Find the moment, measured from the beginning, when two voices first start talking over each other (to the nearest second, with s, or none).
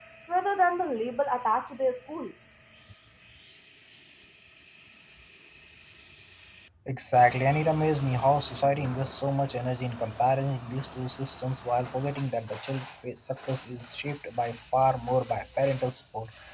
none